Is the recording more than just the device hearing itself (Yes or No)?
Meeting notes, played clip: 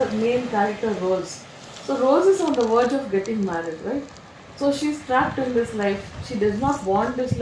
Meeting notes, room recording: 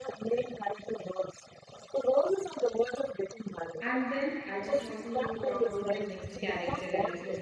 Yes